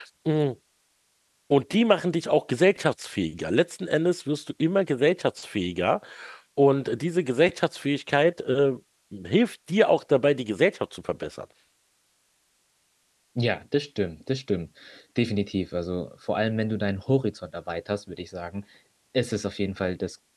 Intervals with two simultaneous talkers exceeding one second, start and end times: none

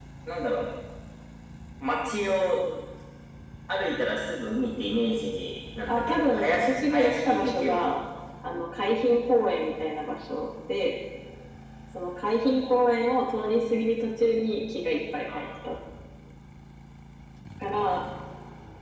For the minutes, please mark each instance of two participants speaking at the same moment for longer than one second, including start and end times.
5.9-7.9

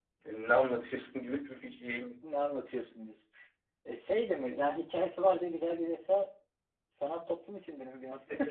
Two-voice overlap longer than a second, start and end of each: none

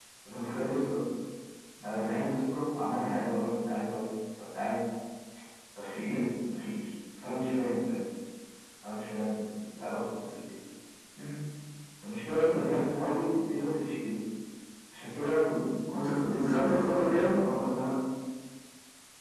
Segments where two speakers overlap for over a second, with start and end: 16.1-17.4

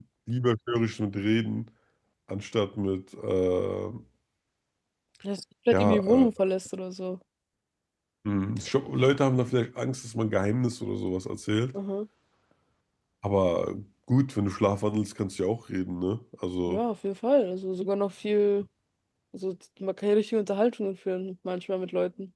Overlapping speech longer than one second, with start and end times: none

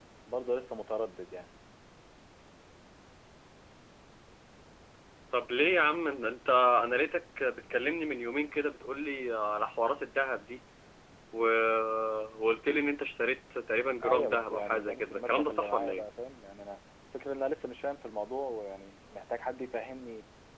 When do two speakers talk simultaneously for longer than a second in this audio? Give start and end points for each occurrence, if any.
14.0-16.0

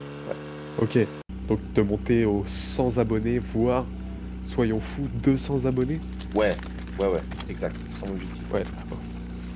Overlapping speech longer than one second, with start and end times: none

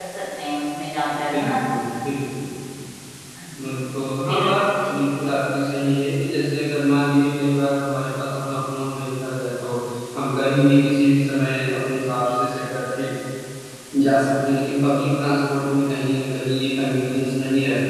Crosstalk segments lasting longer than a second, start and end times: none

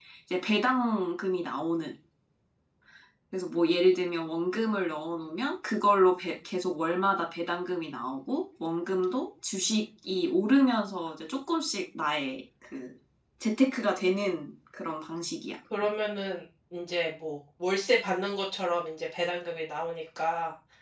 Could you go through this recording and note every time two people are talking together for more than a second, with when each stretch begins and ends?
none

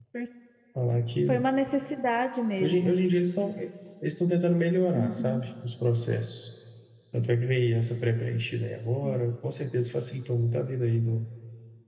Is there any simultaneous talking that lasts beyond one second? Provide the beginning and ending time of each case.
none

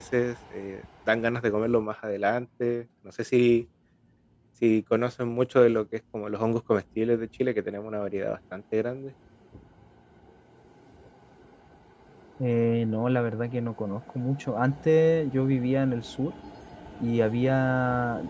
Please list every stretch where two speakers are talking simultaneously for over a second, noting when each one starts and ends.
none

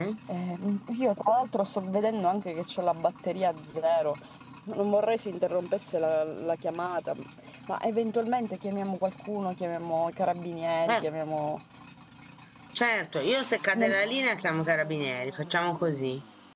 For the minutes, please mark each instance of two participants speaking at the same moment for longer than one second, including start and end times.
none

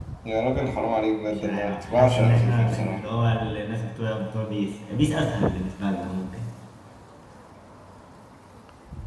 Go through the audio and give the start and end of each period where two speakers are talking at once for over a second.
1.3-3.0

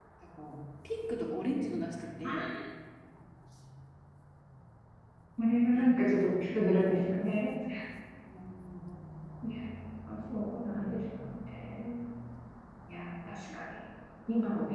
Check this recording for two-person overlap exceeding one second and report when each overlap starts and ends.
none

